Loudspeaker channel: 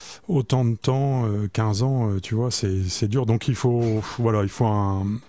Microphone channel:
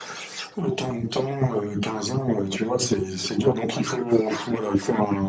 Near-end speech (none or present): none